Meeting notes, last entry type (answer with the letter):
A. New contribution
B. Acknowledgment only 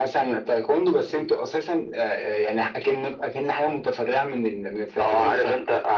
A